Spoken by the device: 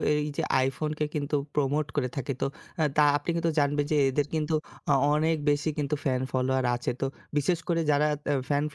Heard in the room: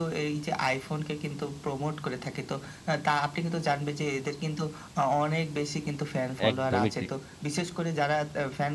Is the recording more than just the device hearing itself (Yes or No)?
Yes